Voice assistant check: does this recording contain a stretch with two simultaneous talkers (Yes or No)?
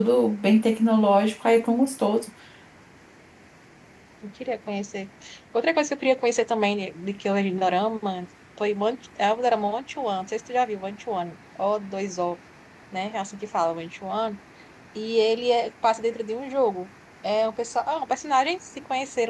No